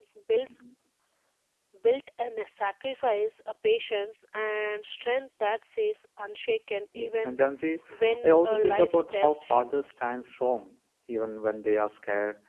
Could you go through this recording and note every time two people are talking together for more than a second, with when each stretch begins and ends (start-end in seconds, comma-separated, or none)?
8.2-9.7